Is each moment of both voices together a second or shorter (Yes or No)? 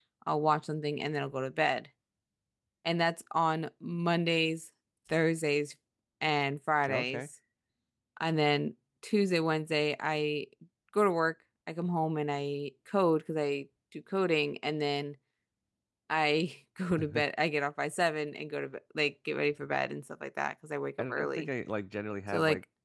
Yes